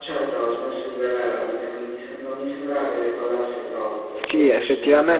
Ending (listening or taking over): taking over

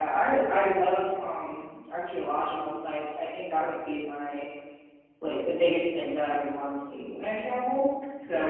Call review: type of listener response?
listening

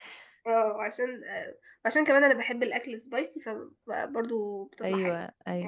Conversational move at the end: taking over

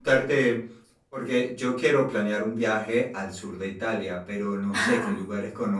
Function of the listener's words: listening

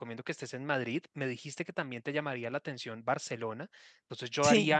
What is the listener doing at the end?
listening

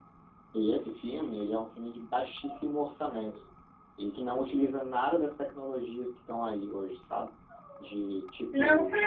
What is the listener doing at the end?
taking over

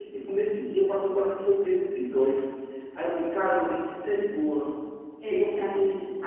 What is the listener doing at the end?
taking over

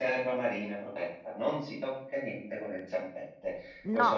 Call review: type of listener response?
taking over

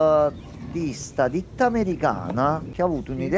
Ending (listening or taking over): listening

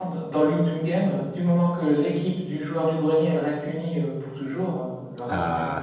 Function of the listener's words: taking over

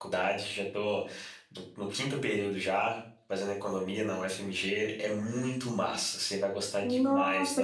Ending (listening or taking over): taking over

